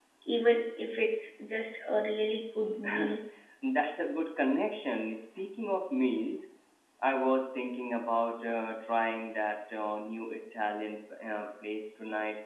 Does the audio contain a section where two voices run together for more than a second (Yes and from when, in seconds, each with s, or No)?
No